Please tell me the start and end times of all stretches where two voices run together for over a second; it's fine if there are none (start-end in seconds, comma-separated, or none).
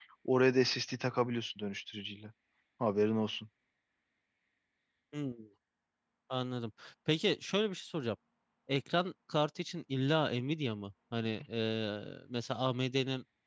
none